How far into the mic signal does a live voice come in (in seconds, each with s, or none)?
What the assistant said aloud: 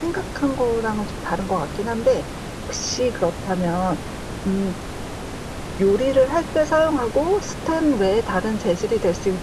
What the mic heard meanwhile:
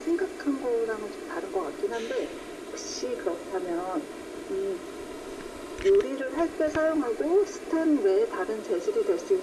none